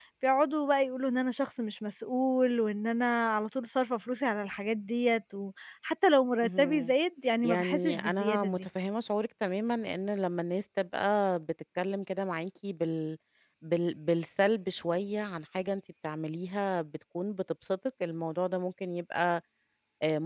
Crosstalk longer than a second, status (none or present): present